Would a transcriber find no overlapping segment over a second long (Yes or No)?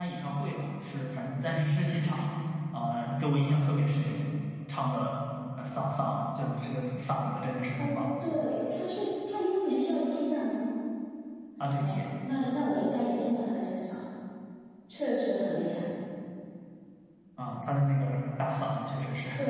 Yes